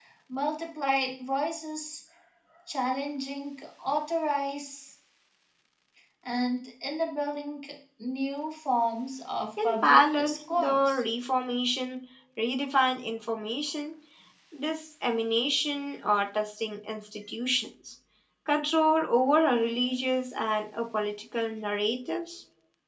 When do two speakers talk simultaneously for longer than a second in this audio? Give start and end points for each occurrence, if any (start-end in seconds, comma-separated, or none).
9.6-11.0